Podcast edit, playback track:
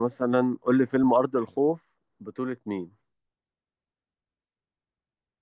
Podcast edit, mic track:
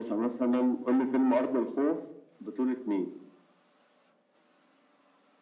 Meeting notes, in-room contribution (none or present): none